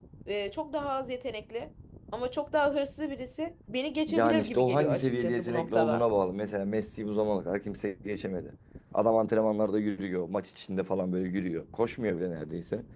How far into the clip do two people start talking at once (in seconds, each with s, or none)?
4.1 s